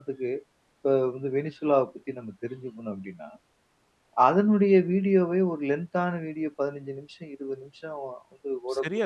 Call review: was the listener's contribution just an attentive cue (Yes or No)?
No